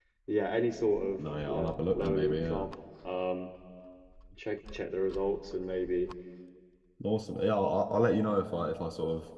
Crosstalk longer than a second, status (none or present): present